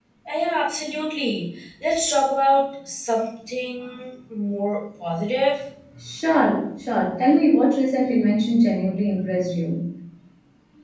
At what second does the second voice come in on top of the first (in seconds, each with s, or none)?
none